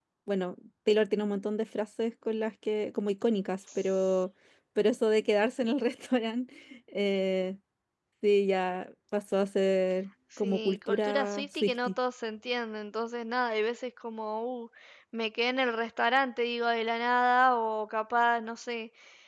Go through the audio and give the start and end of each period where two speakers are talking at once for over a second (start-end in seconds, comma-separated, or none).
10.4-11.9